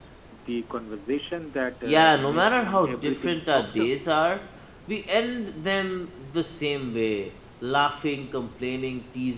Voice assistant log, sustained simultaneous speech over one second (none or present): present